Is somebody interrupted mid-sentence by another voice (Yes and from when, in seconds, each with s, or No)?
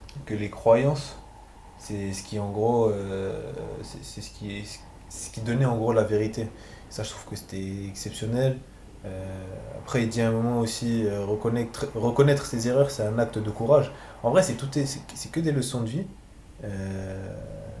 No